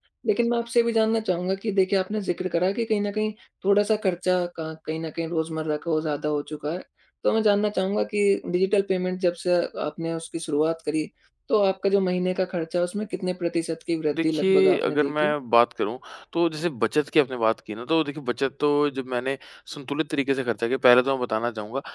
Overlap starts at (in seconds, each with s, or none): 14.1 s